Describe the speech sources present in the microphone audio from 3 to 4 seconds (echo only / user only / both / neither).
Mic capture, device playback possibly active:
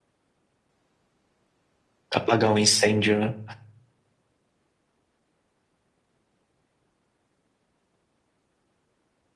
user only